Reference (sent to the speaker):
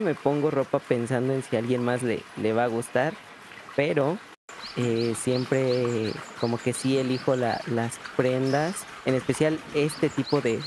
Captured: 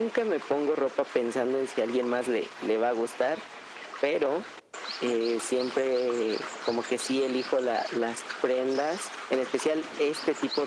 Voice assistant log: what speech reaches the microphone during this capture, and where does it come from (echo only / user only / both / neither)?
echo only